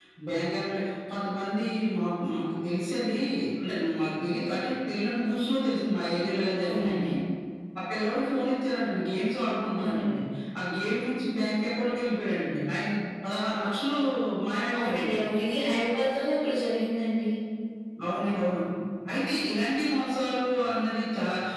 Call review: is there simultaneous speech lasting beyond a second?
No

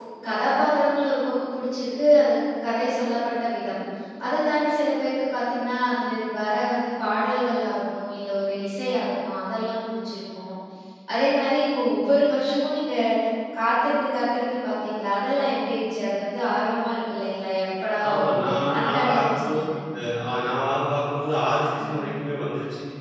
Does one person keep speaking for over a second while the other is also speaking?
Yes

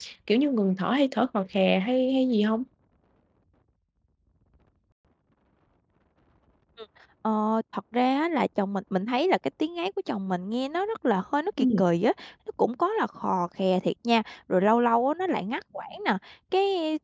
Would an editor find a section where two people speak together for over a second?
No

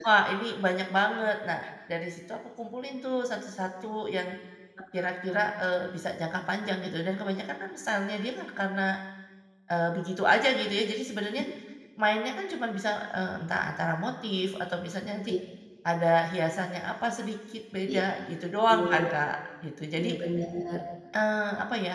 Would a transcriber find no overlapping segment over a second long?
Yes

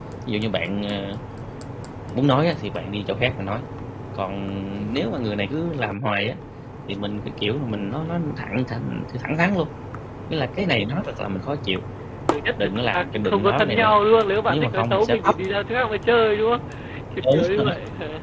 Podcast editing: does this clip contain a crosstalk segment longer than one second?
Yes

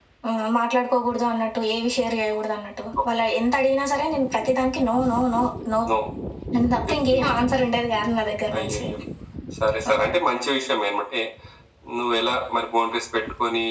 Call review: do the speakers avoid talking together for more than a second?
Yes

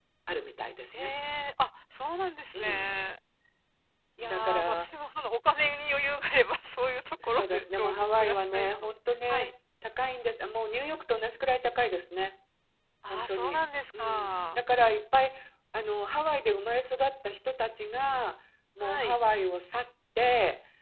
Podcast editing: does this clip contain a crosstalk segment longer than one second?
Yes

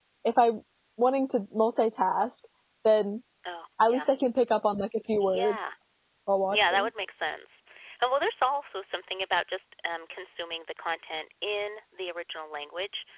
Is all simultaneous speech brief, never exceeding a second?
Yes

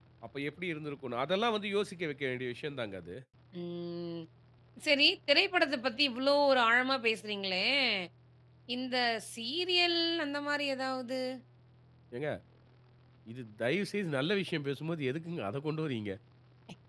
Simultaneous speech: No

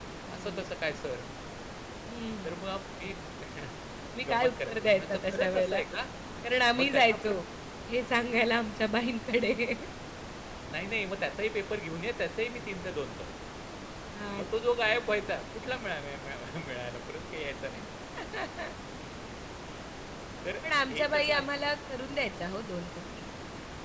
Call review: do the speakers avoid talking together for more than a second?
No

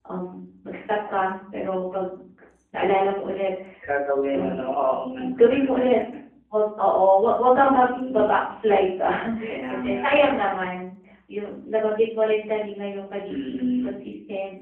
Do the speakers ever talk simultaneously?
Yes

